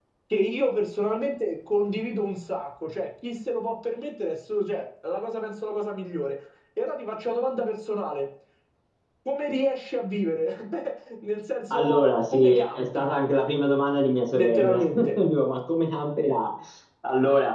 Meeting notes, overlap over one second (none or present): present